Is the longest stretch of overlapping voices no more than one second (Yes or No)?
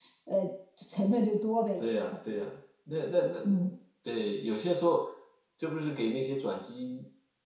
Yes